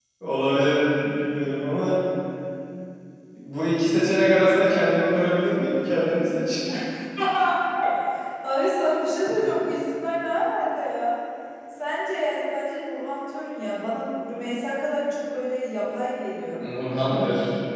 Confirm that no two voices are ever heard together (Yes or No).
Yes